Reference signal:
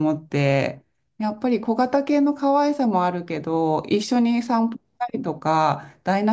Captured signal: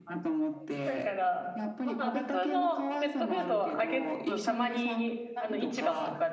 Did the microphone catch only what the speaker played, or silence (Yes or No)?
No